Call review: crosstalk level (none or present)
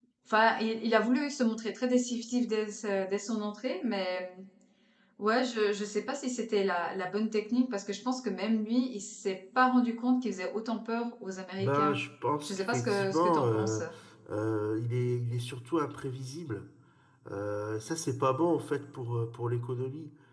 present